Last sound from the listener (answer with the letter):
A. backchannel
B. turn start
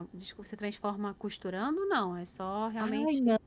B